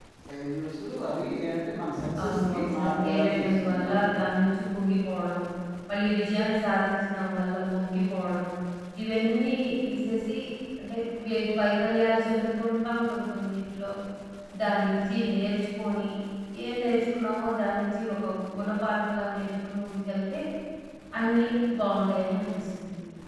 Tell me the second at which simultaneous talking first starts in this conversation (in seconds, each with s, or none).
2.2 s